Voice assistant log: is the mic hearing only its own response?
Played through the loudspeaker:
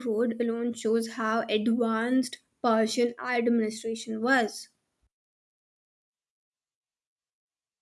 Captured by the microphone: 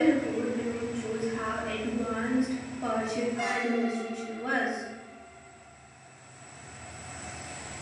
Yes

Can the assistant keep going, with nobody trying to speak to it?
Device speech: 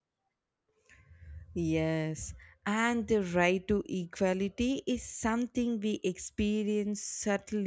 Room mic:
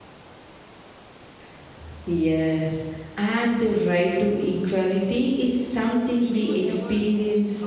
No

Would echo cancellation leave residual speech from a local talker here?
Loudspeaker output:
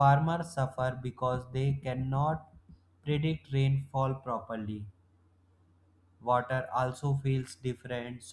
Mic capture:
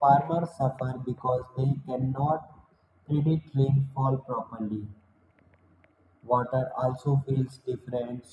No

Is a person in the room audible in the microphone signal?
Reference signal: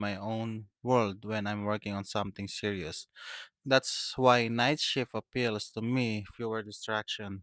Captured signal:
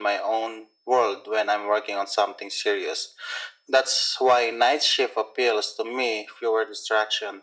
No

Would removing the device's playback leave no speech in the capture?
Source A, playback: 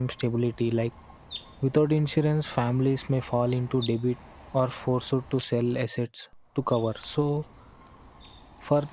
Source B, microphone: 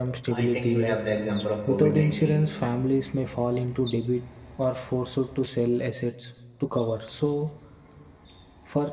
No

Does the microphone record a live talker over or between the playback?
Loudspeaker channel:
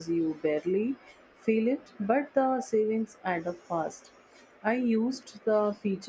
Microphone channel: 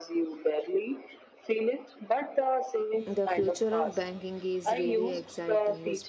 Yes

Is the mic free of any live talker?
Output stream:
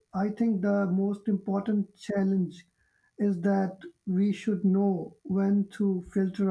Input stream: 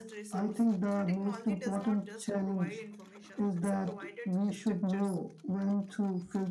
No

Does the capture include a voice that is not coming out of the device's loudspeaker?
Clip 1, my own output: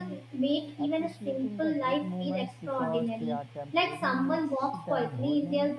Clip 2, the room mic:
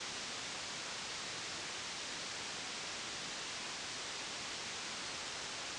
No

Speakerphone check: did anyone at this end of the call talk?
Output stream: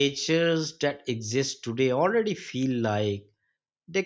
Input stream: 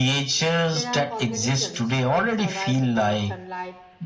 Yes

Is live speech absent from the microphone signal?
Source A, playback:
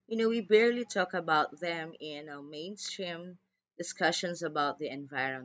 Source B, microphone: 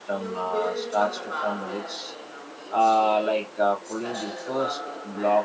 No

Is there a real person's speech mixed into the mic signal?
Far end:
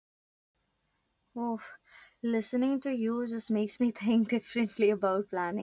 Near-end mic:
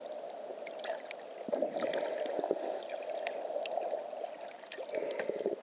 No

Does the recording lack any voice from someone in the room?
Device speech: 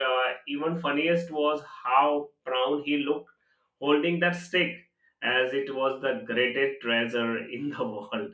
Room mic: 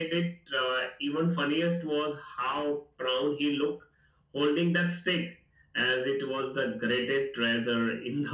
Yes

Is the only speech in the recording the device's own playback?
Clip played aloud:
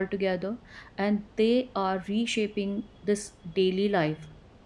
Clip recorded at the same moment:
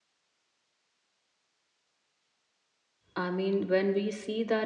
No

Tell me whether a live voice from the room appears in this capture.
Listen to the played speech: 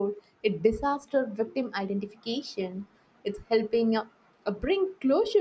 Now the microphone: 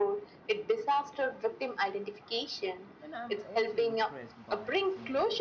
Yes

